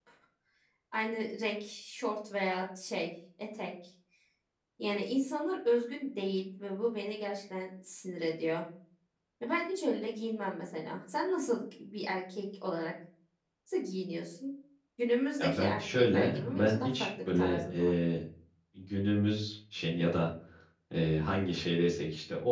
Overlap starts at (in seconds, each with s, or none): 15.4 s